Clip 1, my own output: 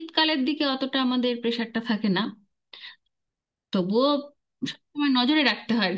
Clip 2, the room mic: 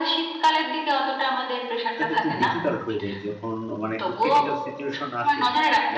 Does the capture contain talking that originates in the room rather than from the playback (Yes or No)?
Yes